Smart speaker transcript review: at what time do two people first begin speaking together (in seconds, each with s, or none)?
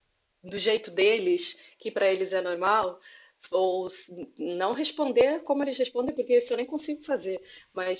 none